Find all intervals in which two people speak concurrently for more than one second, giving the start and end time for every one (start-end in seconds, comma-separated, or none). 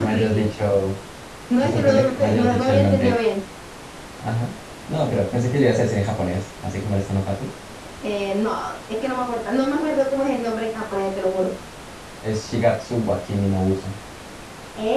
1.6-3.2